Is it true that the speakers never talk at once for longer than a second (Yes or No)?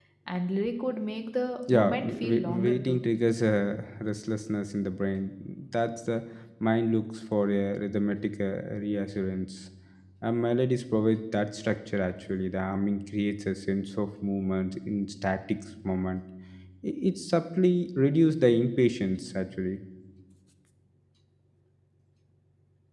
No